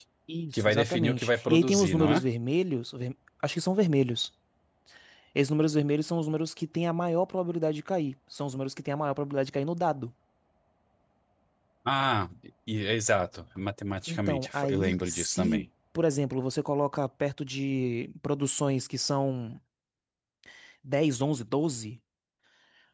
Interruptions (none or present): present